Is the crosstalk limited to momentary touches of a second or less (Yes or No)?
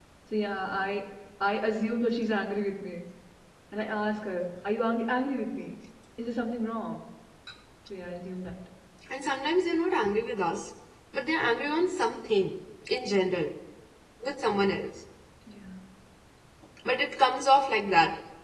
Yes